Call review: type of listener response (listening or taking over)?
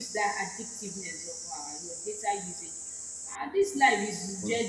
listening